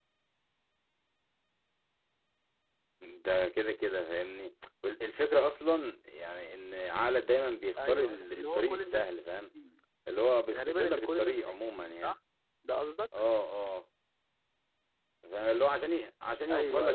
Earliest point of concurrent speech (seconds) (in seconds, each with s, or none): 7.8 s